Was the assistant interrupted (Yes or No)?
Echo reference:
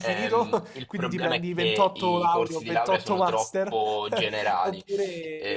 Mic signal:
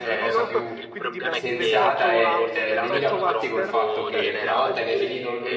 Yes